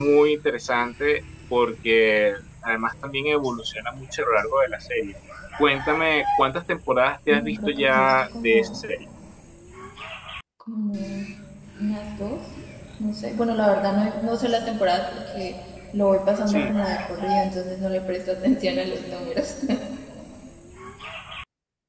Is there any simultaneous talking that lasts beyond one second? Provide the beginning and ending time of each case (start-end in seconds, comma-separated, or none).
7.3-8.8